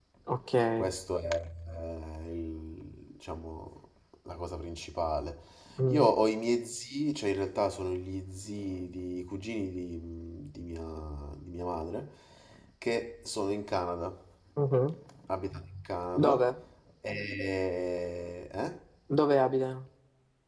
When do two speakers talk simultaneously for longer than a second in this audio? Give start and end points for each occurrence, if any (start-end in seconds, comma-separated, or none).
none